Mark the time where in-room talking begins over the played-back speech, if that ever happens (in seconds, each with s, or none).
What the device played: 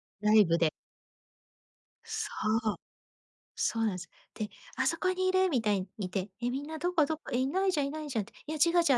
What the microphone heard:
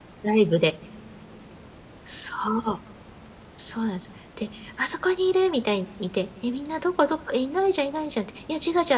none